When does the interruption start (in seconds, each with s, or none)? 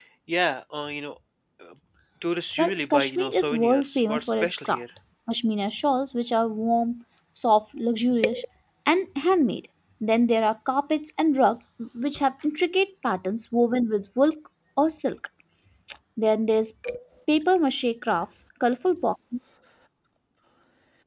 2.6 s